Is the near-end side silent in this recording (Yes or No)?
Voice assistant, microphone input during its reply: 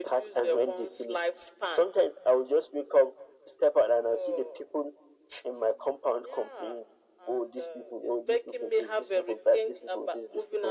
Yes